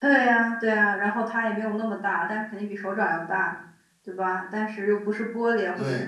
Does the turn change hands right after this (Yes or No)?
No